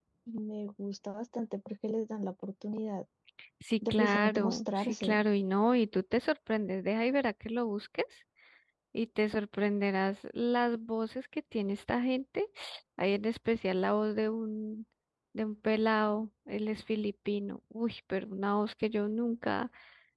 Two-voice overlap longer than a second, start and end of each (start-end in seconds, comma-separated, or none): 3.9-5.2